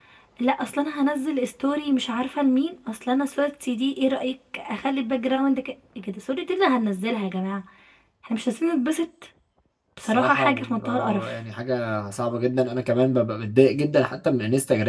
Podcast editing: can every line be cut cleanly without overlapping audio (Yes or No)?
No